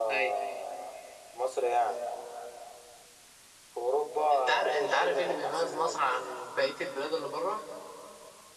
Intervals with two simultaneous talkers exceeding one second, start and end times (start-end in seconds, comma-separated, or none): 4.3-6.2